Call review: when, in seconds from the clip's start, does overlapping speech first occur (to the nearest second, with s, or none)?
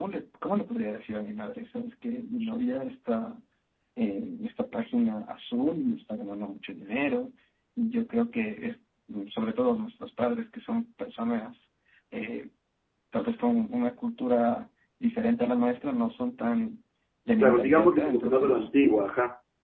17 s